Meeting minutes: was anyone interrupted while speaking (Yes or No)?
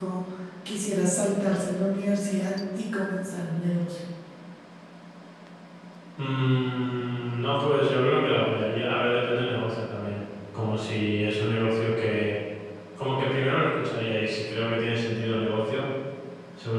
No